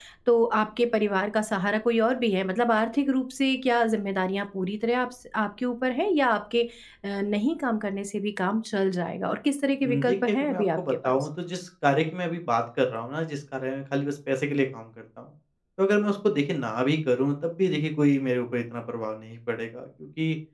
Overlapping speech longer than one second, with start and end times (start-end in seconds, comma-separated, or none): 9.8-11.2